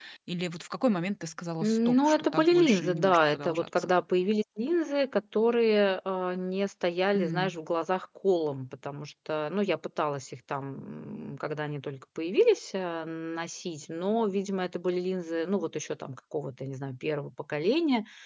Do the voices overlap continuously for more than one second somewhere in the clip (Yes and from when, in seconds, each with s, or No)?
Yes, from 1.6 s